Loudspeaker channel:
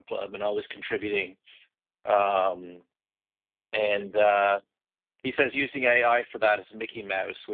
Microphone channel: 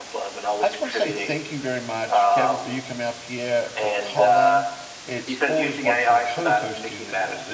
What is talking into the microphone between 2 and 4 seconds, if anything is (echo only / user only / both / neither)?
both